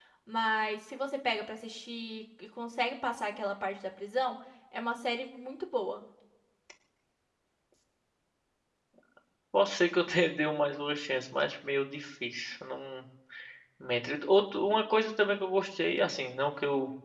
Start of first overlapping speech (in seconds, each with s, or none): none